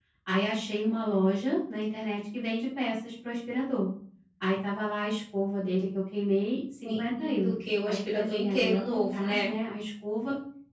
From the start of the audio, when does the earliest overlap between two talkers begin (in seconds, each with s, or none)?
6.8 s